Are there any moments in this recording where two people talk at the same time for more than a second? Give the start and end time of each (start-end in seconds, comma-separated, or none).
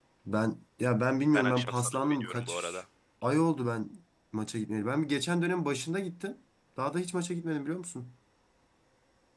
1.3-2.8